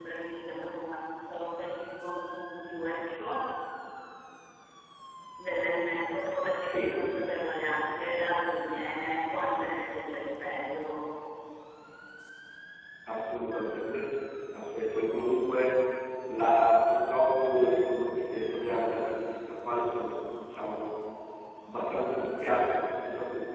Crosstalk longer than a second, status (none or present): none